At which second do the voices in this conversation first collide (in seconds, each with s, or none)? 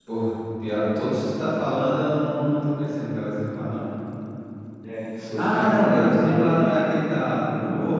5.3 s